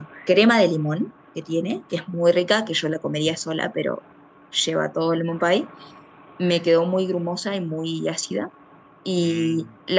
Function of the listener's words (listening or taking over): listening